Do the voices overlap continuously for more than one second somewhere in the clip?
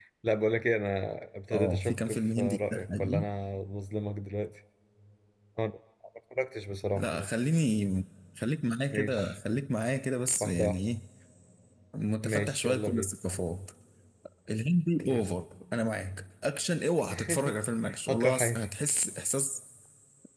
Yes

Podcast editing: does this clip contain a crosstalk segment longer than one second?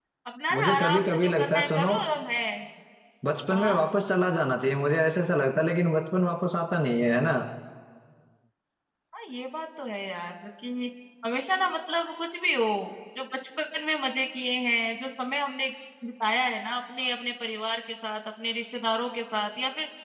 Yes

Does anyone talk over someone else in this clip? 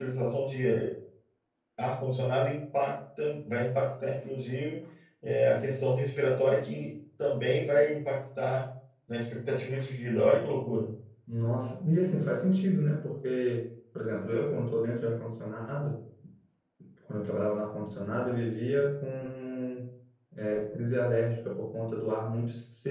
No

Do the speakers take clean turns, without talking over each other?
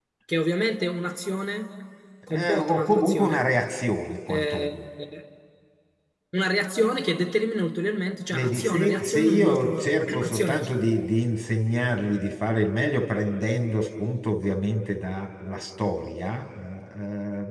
No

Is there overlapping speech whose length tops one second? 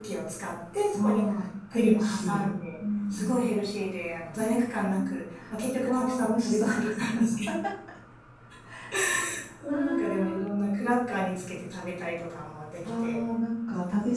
Yes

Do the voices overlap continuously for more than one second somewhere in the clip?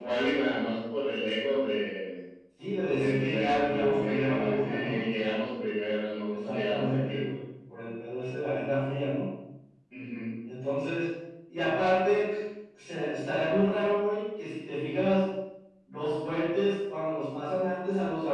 Yes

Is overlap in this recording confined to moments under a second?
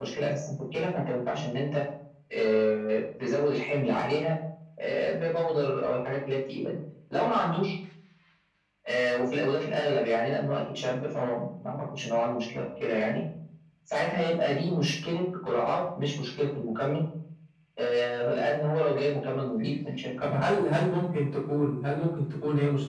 Yes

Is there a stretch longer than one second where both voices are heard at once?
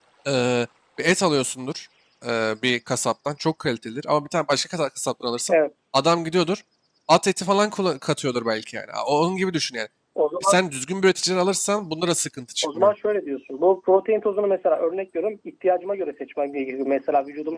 No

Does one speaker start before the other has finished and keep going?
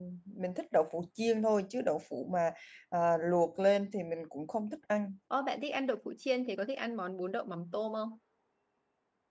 No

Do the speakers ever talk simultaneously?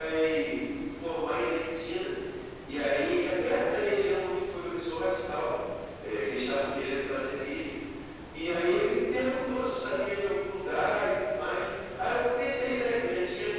No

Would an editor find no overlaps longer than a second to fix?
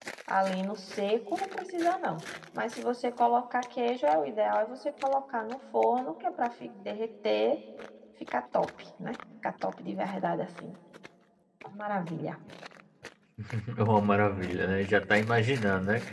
Yes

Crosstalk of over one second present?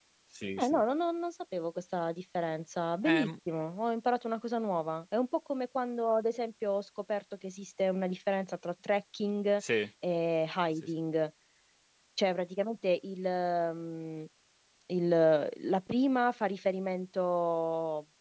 No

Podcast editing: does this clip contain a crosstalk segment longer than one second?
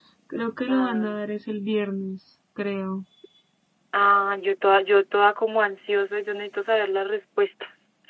No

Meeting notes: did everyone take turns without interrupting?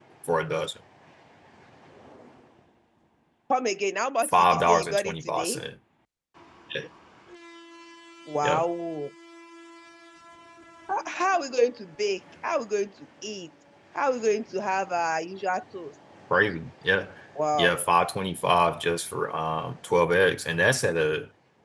No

